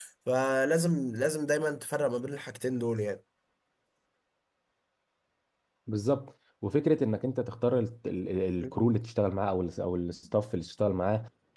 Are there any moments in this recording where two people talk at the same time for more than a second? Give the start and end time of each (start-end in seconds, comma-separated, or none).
none